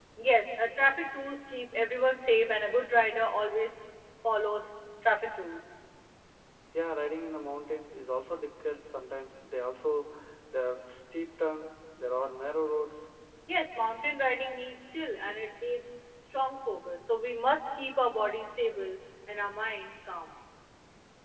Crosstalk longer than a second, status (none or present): none